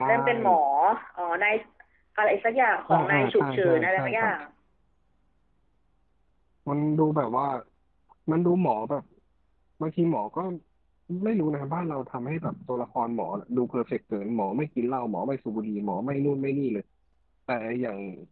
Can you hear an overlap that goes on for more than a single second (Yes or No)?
Yes